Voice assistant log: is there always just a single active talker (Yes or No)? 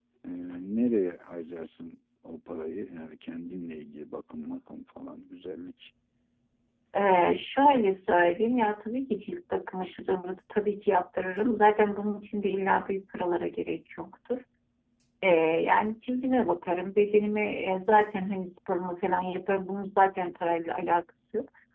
Yes